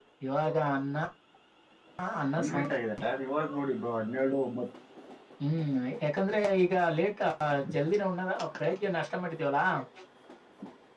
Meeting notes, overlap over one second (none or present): none